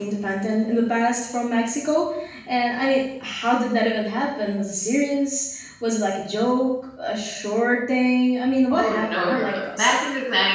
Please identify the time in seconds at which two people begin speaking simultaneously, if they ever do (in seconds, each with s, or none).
8.7 s